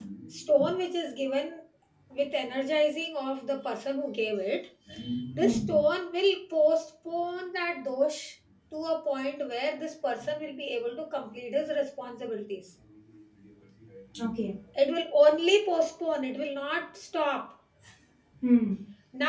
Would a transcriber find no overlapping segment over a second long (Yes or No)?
Yes